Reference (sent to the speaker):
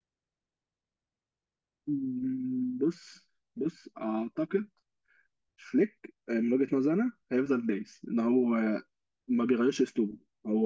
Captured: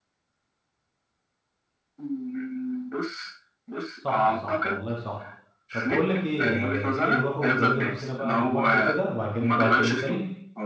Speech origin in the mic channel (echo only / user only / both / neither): both